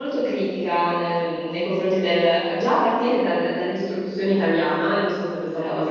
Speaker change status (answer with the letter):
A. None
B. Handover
A